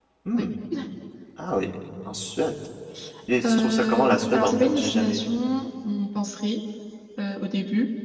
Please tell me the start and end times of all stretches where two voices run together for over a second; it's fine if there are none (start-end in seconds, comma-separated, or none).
3.5-5.4